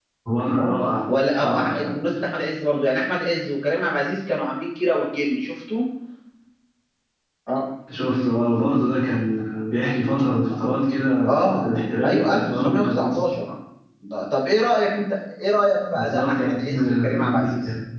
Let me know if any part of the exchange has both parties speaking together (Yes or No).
Yes